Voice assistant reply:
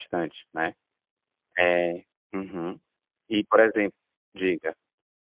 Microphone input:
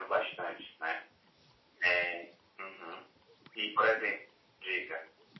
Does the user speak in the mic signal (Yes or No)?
No